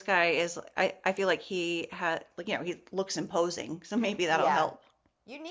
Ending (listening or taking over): taking over